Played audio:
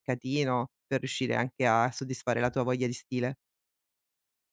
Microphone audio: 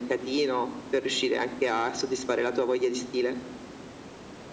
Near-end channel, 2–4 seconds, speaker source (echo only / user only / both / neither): echo only